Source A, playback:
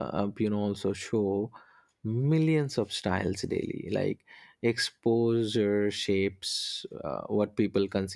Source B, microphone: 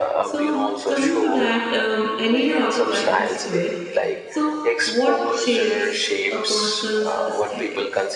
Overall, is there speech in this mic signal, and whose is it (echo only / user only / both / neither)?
both